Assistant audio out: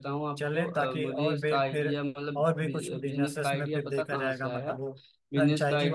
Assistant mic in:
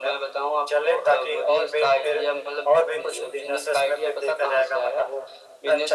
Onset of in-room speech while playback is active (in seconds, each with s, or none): none